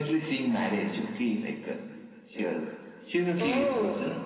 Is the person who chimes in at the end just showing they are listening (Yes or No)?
Yes